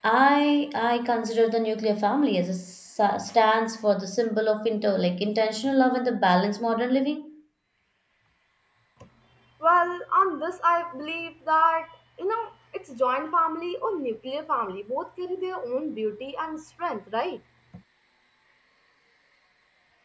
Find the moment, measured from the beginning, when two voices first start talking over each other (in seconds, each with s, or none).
none